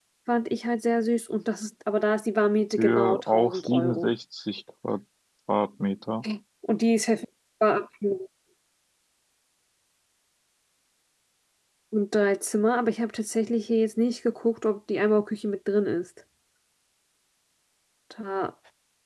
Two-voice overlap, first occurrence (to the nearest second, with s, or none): 3 s